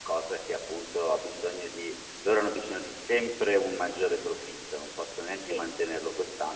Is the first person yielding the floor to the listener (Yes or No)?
No